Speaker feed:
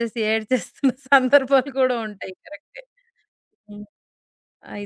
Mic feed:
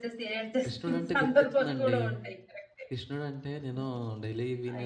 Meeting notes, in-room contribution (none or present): present